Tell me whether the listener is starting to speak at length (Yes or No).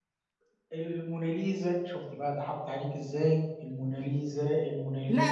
Yes